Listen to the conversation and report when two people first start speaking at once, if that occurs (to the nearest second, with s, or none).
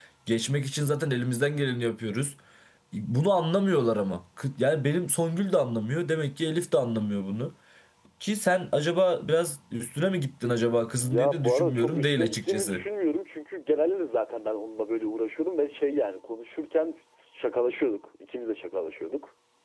11 s